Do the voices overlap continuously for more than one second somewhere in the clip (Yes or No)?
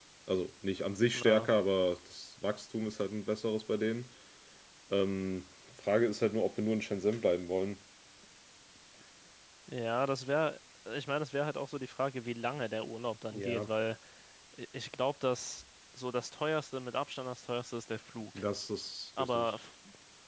No